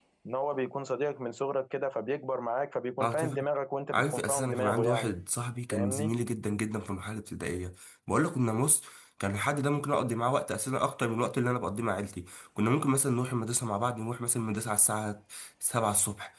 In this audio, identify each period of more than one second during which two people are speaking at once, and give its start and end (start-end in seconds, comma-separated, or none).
3.9-5.1